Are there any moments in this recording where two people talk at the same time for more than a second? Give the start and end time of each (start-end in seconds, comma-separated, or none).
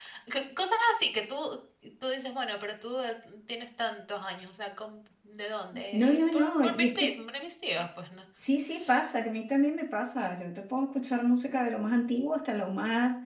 5.9-7.2